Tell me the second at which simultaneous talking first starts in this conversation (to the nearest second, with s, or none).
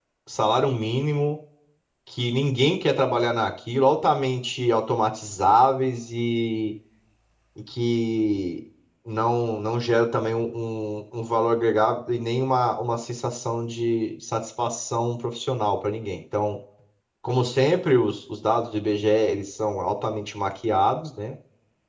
none